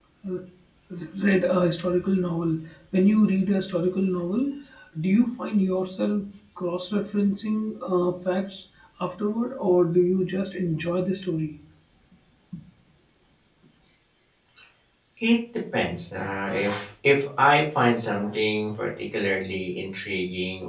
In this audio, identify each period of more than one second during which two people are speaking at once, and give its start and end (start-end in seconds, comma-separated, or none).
none